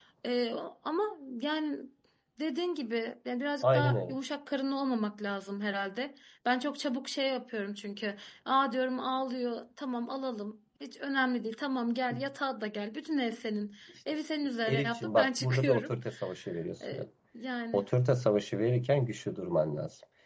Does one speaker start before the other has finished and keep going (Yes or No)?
Yes